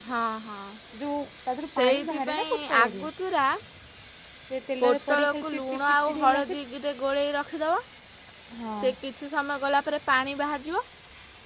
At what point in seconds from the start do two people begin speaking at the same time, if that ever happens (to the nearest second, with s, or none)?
2 s